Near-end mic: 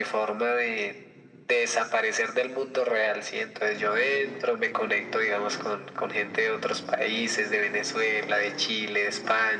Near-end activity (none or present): none